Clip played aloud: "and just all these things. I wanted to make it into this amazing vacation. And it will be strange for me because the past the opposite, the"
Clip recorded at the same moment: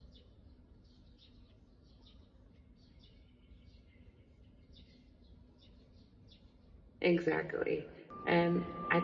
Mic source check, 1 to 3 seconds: neither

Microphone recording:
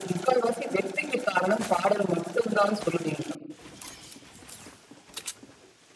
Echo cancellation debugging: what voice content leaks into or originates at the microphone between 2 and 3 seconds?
echo only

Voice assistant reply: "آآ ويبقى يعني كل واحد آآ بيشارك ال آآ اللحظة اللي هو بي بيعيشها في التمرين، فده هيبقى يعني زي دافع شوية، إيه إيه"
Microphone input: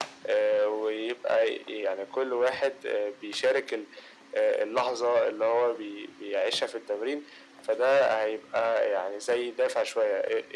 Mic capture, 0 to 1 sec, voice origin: echo only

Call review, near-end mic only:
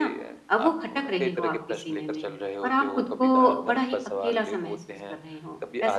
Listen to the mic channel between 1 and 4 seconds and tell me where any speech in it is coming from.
both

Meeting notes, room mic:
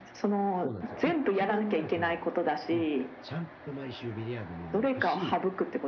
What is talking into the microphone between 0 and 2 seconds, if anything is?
both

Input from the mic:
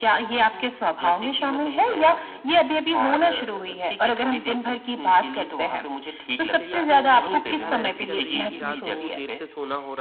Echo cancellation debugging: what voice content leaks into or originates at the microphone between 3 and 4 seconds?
echo only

